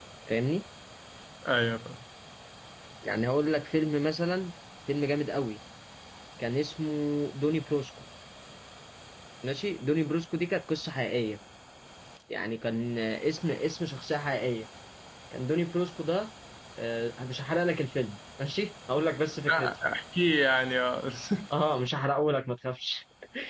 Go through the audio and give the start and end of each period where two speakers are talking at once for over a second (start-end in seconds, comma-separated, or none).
none